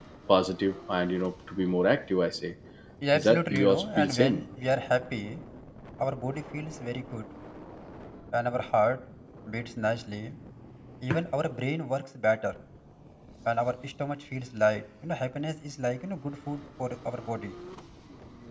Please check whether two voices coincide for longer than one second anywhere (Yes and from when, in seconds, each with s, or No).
Yes, from 3.1 s